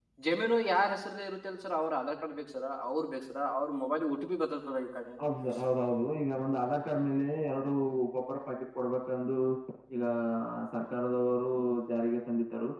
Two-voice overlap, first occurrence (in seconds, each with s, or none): none